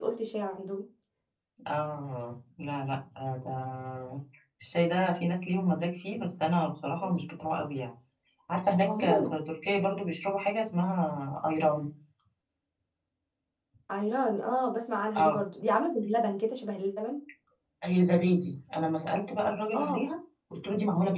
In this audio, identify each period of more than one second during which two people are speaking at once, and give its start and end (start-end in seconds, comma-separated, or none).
none